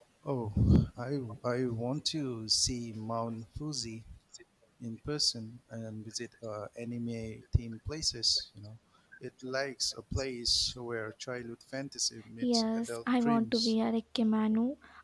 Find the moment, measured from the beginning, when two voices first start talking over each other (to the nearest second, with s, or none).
12 s